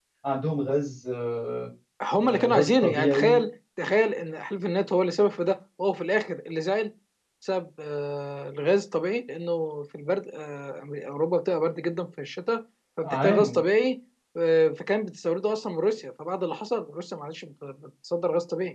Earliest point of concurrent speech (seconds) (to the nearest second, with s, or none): 2 s